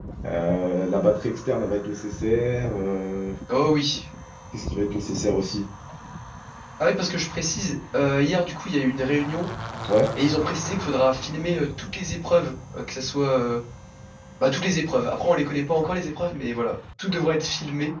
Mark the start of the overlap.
none

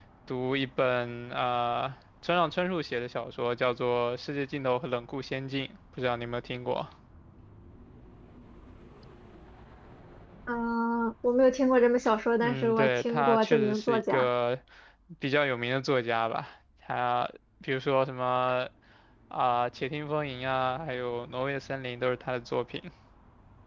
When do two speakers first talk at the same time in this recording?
12 s

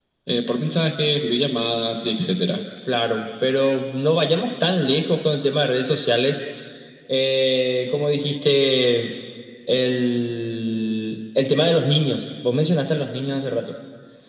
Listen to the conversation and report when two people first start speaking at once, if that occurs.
none

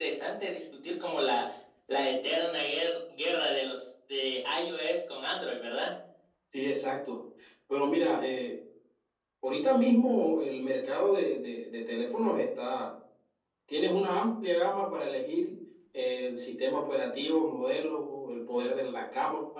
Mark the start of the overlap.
none

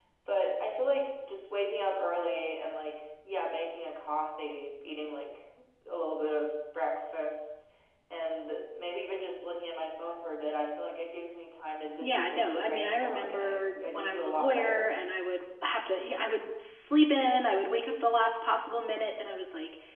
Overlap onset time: 12 s

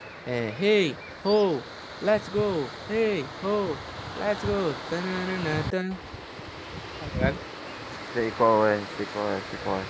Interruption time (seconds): none

